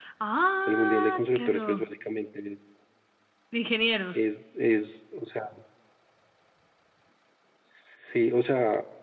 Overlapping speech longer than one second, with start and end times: 0.7-1.9

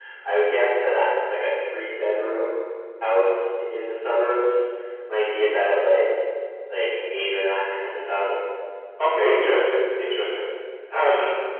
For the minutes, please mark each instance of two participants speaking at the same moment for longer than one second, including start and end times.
none

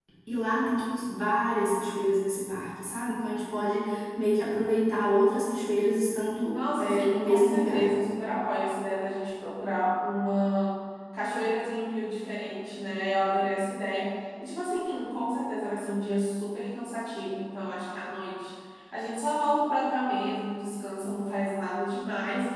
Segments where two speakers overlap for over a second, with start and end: 6.5-7.9

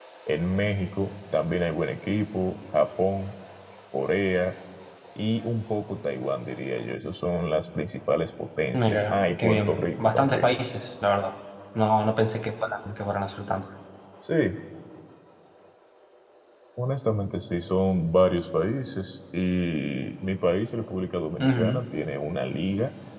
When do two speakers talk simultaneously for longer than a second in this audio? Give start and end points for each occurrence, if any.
8.7-10.5

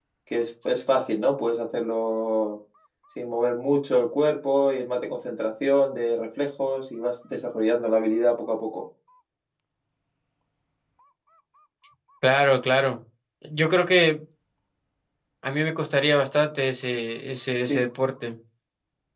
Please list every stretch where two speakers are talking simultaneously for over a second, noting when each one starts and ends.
none

